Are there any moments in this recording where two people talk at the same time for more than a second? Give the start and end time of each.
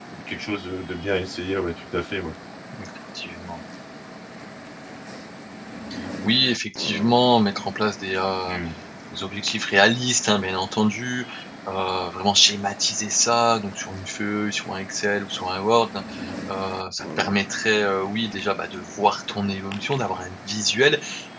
none

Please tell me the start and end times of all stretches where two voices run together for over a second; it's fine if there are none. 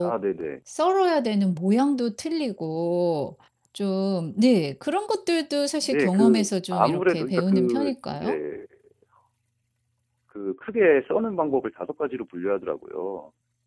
5.8-8.4

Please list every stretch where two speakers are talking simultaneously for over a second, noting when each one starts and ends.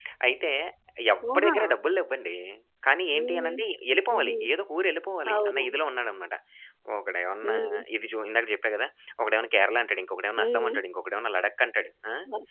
none

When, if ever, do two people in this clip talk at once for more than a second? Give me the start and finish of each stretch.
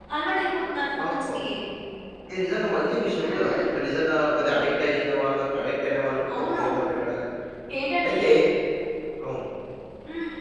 none

